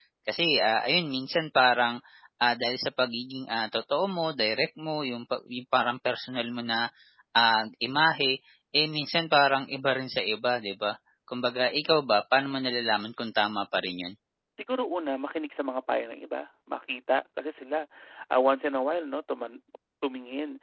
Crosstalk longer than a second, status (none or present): none